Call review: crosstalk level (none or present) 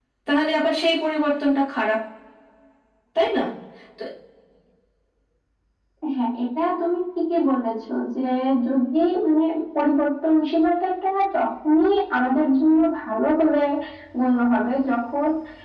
none